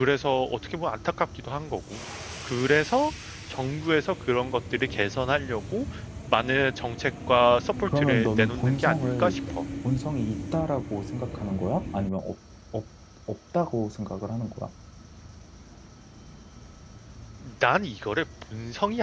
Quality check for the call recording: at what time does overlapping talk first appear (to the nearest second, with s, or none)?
8 s